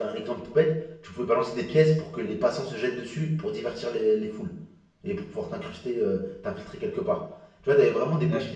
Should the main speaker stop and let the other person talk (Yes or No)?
No